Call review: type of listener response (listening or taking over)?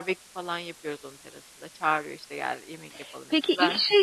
taking over